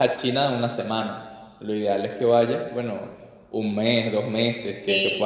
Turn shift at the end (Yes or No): No